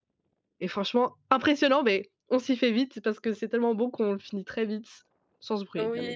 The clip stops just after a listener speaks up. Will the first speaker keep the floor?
No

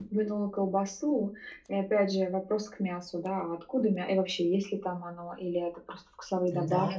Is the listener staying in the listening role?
No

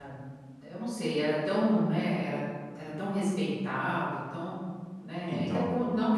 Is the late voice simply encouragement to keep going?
Yes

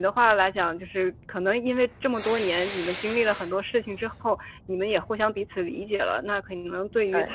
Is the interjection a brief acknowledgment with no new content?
Yes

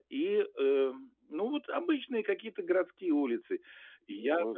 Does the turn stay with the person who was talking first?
Yes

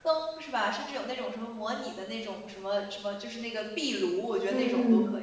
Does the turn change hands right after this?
Yes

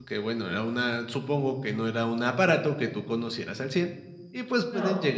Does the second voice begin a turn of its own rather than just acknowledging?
No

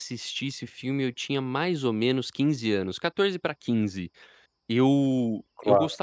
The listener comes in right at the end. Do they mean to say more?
No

